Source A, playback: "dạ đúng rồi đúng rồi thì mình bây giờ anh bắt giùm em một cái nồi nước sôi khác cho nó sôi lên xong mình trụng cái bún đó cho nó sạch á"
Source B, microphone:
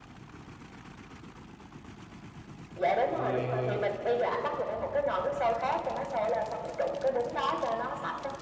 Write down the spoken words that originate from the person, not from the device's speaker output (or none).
em ơi em ơi